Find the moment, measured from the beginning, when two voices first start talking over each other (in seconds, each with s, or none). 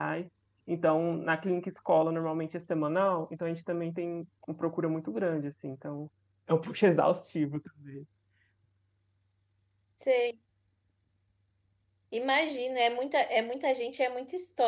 none